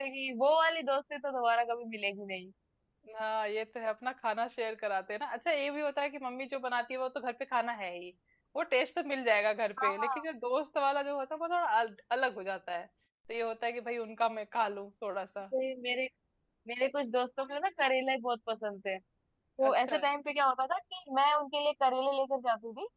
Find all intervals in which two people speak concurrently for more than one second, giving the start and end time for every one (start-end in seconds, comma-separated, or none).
none